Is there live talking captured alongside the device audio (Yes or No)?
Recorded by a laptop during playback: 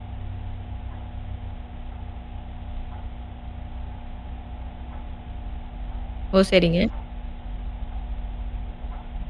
Yes